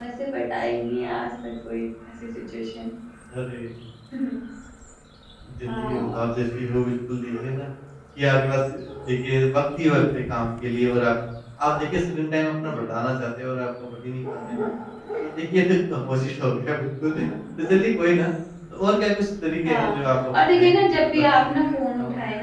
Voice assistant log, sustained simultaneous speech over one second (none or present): present